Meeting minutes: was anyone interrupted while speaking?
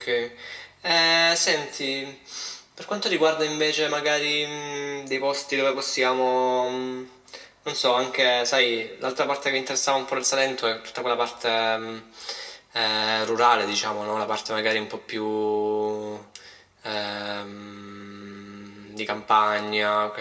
No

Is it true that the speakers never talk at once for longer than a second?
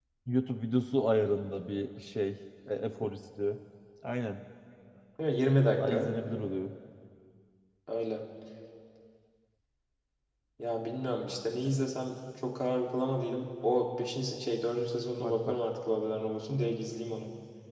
Yes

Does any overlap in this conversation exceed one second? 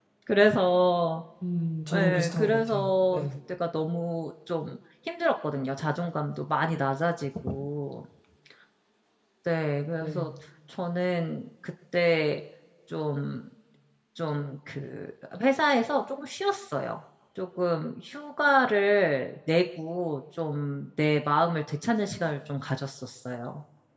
Yes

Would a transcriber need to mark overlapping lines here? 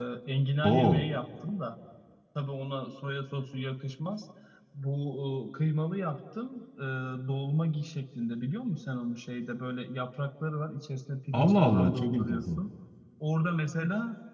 Yes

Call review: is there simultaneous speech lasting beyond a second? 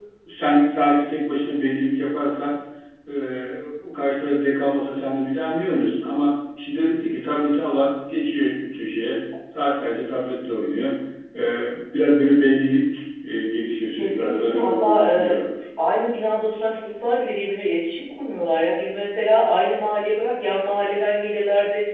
Yes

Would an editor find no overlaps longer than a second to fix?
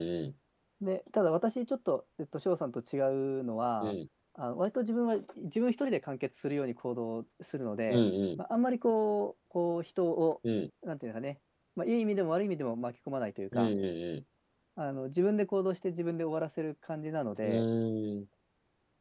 Yes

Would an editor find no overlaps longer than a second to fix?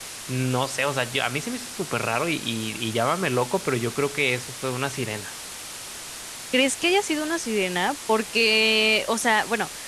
Yes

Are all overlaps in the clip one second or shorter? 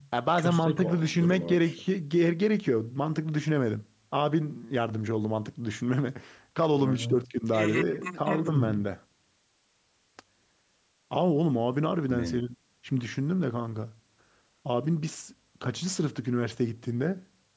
No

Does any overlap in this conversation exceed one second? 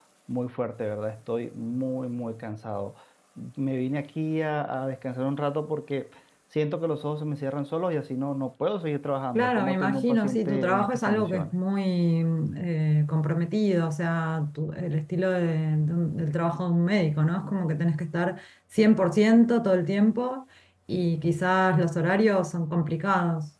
Yes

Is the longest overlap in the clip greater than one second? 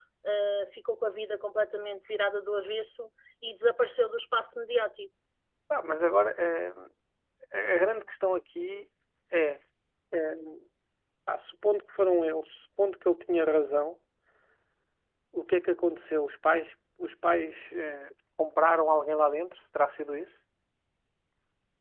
No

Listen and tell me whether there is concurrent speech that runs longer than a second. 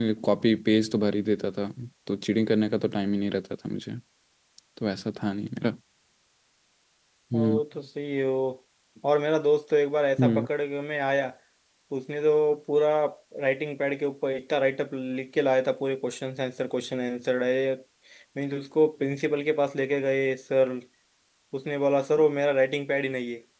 No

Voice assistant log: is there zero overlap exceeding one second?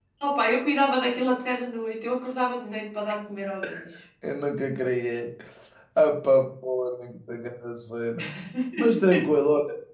Yes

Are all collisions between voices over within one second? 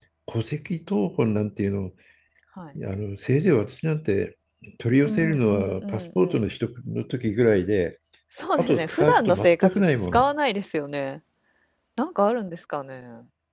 No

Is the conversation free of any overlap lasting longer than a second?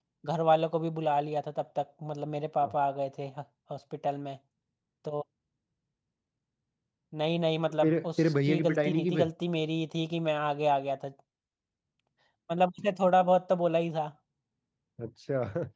No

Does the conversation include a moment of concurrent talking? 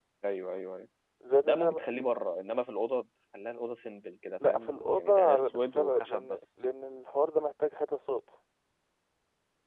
Yes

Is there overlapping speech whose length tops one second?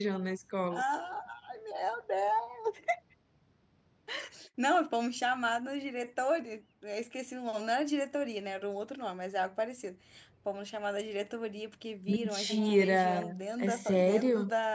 Yes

